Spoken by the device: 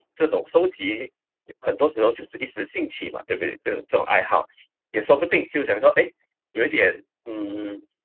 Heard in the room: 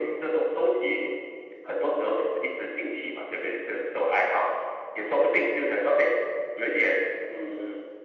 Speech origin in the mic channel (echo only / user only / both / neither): echo only